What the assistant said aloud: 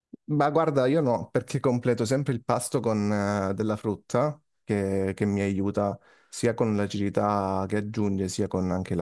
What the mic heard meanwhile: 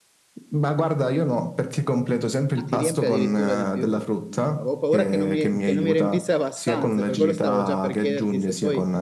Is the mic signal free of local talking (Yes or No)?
No